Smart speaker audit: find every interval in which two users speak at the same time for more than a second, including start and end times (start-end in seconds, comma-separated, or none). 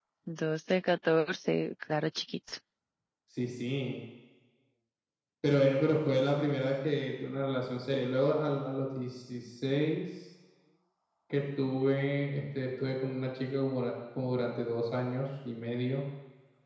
none